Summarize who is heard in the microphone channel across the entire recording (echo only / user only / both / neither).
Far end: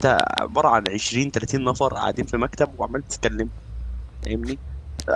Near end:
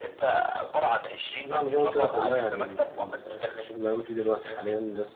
both